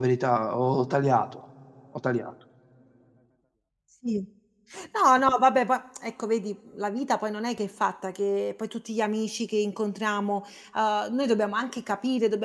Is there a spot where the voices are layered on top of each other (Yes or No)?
No